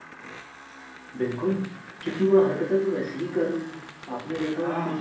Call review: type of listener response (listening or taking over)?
listening